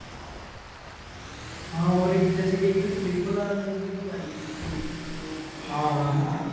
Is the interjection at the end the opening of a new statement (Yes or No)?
Yes